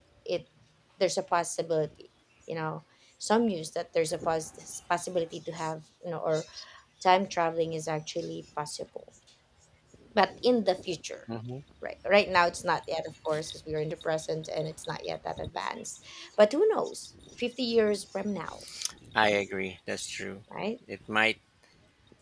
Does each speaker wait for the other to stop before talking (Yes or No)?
Yes